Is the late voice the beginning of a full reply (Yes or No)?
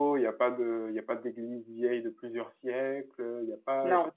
No